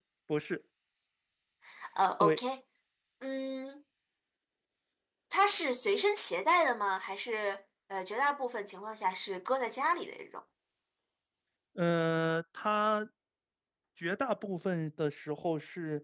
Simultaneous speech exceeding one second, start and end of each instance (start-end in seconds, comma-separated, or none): none